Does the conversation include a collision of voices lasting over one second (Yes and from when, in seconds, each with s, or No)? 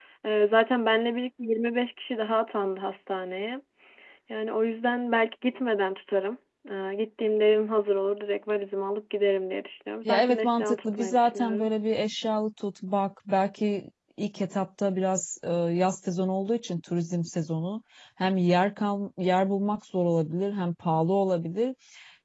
Yes, from 10.1 s